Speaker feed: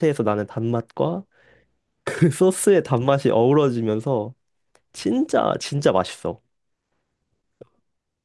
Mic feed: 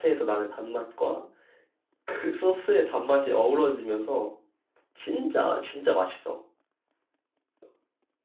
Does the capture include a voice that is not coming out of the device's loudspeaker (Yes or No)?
No